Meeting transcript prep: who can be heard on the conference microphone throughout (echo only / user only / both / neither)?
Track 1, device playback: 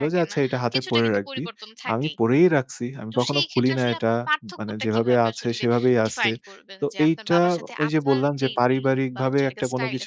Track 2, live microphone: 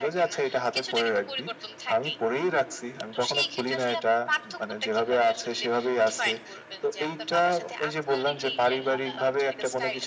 both